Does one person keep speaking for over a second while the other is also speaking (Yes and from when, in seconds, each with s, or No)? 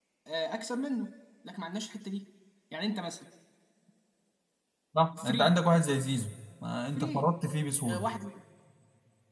No